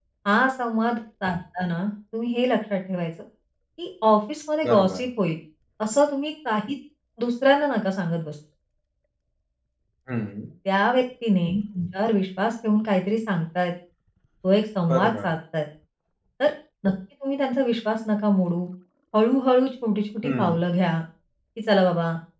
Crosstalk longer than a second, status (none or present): none